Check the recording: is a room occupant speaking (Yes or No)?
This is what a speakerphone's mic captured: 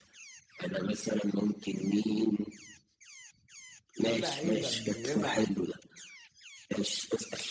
Yes